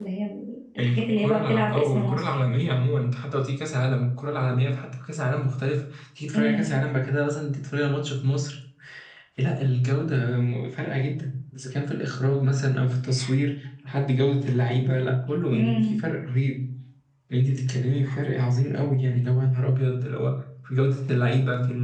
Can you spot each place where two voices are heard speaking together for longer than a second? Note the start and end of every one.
0.8-2.4

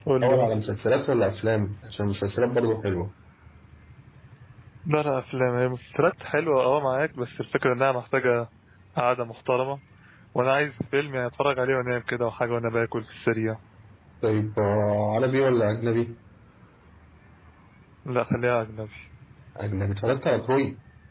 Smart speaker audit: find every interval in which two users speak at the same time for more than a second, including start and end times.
none

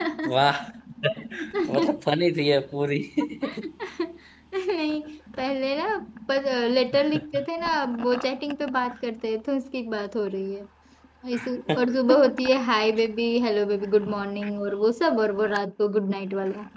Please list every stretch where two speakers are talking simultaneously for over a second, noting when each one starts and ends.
none

